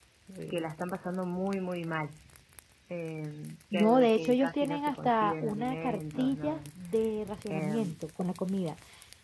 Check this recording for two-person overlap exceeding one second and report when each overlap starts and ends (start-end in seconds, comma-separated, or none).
3.7-6.6